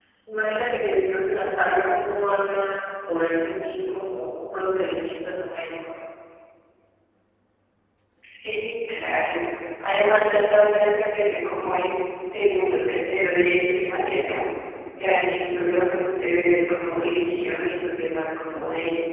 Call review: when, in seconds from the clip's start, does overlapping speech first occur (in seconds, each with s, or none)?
none